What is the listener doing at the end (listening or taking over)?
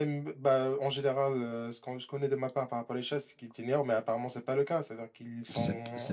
taking over